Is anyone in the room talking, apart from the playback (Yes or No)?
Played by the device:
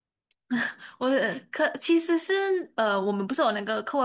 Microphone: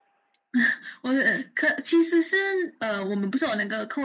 No